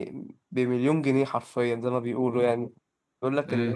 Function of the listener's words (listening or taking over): listening